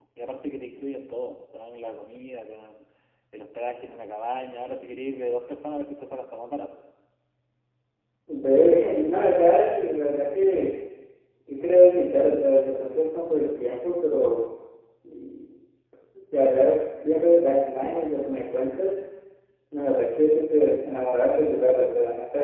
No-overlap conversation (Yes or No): Yes